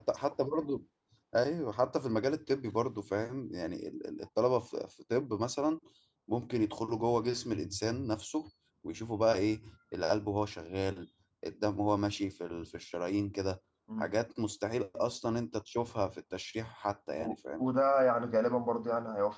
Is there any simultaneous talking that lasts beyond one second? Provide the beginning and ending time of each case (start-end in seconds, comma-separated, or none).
none